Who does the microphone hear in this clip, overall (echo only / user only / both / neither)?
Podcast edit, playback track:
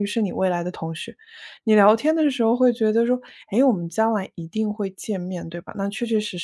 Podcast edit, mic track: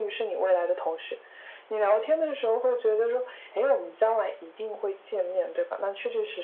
echo only